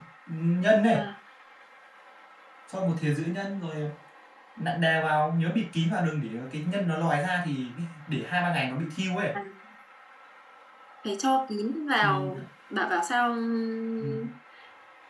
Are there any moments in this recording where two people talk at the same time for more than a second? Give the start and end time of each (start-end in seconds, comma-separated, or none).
none